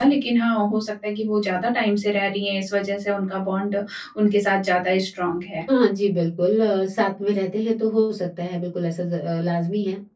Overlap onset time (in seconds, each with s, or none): none